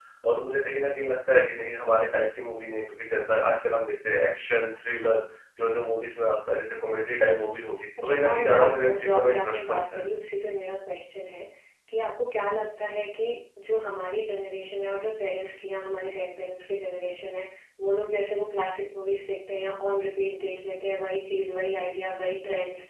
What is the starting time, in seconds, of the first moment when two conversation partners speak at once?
8.0 s

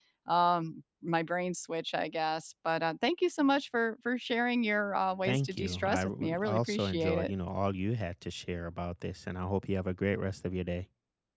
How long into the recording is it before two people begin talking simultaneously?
5.2 s

